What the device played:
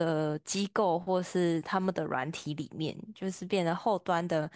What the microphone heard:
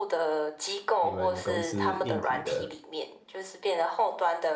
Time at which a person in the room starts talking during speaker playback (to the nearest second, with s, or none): 1 s